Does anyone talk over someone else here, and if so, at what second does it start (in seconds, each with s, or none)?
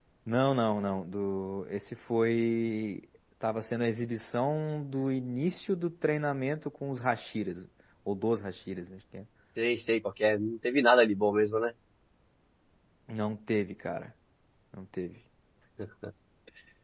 none